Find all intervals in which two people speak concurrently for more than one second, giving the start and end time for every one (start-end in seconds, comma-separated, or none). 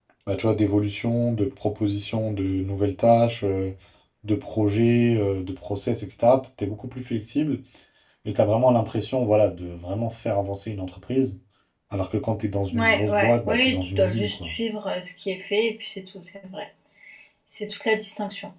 12.7-14.5